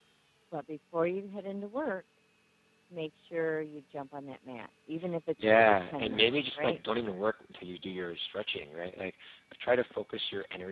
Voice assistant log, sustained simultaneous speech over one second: present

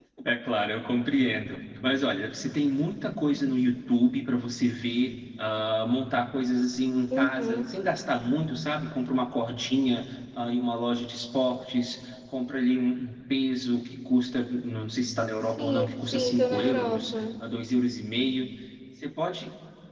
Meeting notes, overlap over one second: present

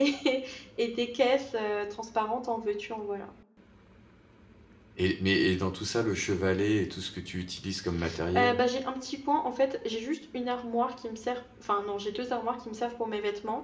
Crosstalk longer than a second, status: none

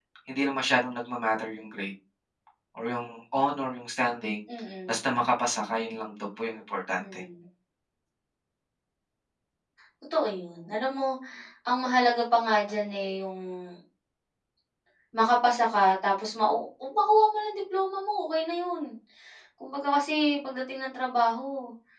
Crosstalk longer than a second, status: none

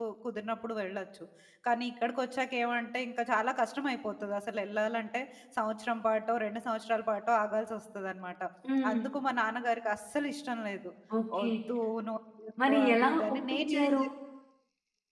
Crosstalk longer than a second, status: present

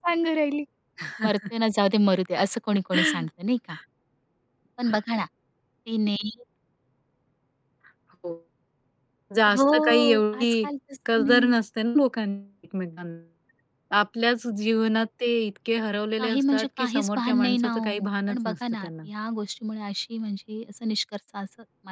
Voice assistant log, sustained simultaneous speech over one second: present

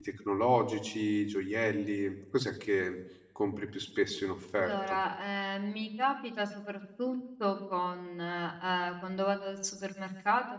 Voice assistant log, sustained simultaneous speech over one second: none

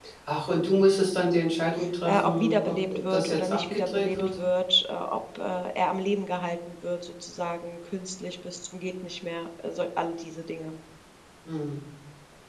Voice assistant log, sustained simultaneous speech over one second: present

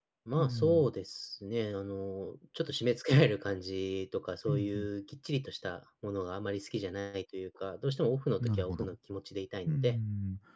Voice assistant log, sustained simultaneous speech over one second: none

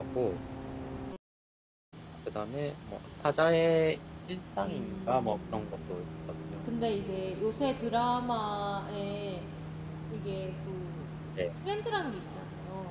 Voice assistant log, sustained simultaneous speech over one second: present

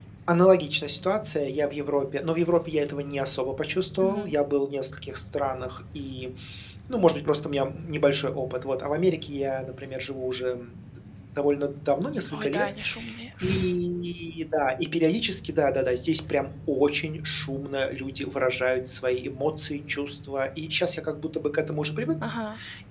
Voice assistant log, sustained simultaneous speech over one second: none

